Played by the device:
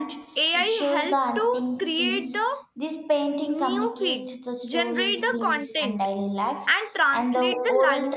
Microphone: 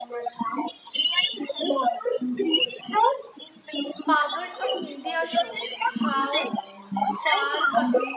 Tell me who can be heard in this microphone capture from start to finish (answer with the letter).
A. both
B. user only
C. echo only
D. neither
A